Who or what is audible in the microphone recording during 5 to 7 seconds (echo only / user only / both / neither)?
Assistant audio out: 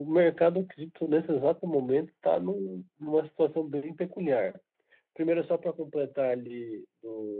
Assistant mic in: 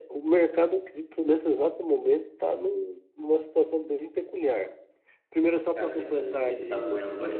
both